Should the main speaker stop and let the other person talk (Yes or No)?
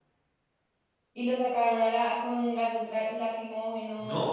Yes